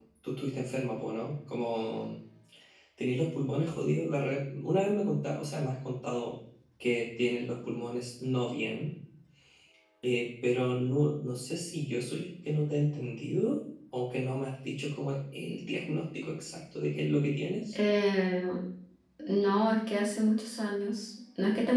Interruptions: none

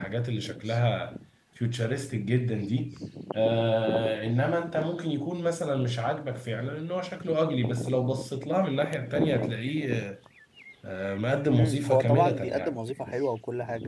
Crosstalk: present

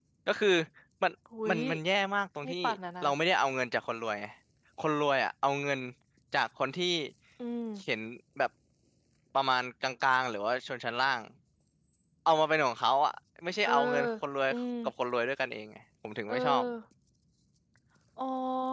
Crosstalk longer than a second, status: none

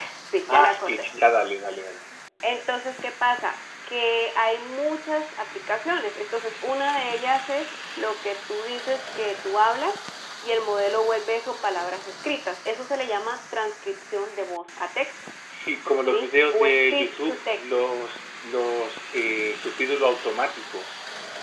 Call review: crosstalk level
present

